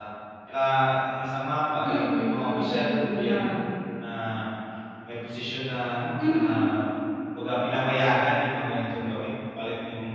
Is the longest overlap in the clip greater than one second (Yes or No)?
Yes